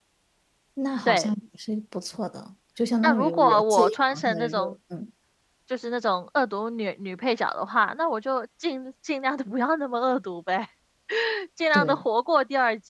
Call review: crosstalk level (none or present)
present